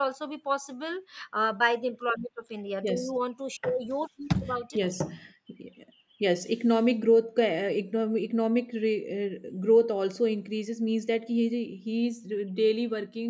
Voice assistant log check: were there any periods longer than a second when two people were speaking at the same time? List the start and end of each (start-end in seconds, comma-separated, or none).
none